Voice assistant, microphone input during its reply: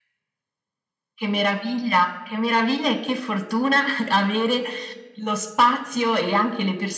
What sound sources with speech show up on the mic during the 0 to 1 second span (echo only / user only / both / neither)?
neither